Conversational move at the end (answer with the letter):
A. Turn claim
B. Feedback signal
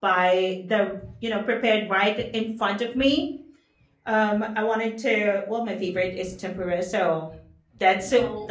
B